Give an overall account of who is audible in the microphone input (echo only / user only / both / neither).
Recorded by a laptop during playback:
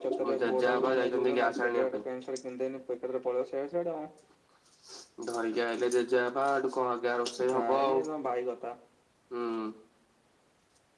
both